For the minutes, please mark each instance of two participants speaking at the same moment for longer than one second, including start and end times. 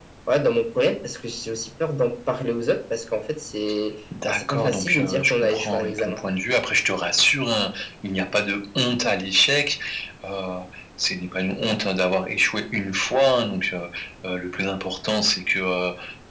4.3-6.2

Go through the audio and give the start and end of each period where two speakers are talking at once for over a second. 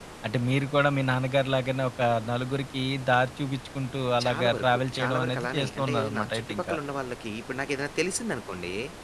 4.2-6.8

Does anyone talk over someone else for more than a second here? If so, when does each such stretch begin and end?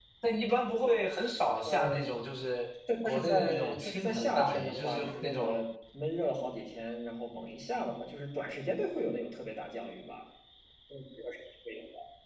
3.0-5.5

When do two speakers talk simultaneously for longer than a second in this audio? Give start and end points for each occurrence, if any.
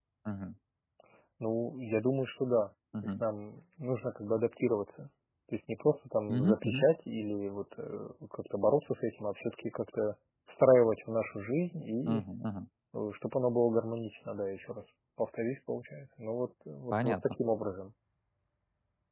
none

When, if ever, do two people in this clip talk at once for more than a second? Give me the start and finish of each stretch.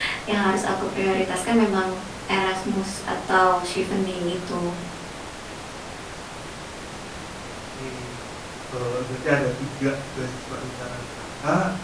none

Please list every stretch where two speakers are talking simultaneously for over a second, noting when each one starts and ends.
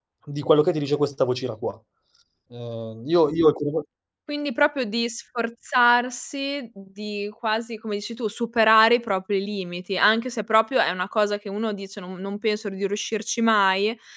none

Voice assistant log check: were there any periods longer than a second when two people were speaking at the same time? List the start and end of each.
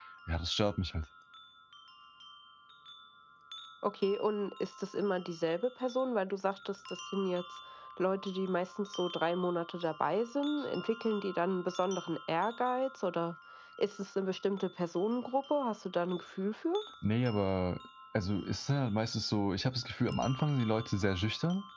none

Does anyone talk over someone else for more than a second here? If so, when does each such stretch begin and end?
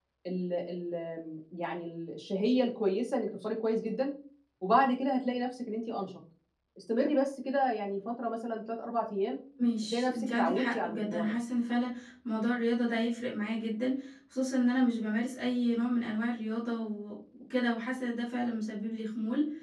9.9-11.3

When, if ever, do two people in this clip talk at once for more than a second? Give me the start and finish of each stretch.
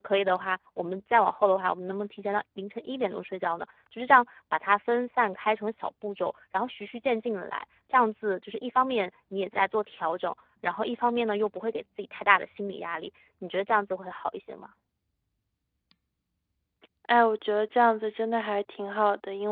none

